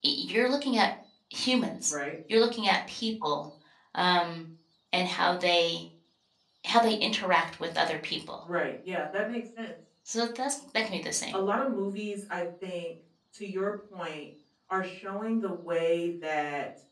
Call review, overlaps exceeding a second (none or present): none